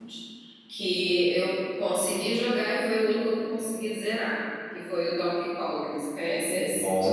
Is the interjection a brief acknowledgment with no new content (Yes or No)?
No